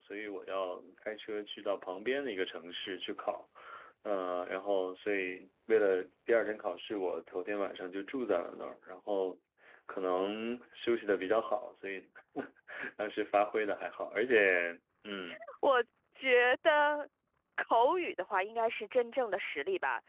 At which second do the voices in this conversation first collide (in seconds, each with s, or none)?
none